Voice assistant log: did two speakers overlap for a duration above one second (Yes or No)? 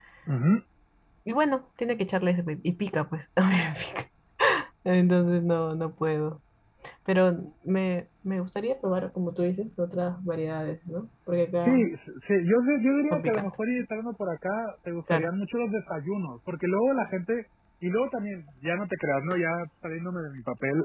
No